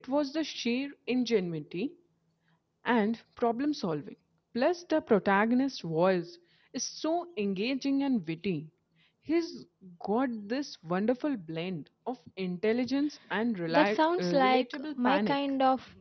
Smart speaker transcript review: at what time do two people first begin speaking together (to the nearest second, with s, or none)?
14 s